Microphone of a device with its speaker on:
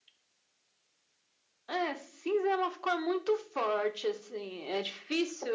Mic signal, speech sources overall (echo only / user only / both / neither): echo only